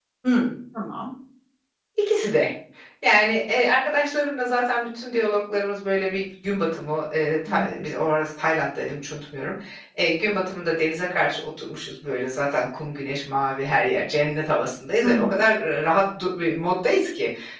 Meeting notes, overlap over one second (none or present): none